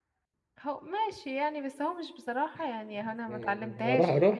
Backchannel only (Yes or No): No